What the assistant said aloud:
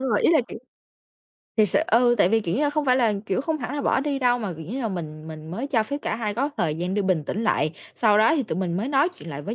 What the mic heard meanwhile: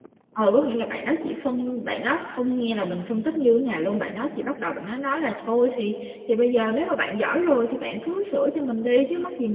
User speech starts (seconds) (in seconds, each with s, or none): 0.3 s